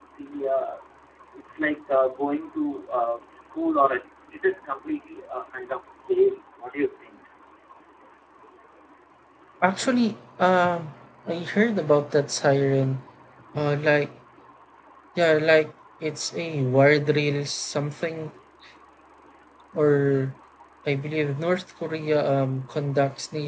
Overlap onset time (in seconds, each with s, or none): none